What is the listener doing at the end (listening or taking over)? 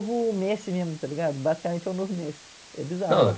taking over